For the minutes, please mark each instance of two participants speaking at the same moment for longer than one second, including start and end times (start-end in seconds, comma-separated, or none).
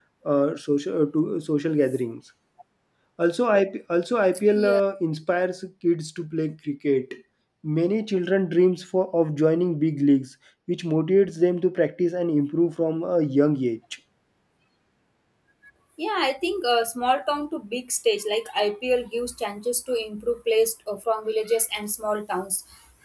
none